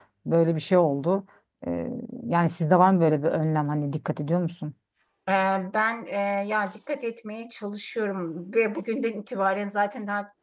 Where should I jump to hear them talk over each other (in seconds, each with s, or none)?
none